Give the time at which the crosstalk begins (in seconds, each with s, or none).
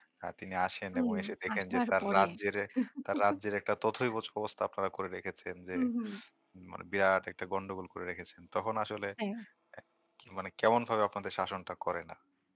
0.9 s